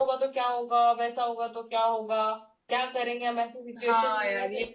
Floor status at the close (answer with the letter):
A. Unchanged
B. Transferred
B